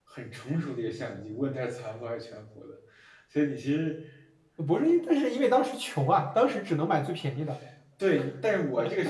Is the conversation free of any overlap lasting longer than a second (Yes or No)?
Yes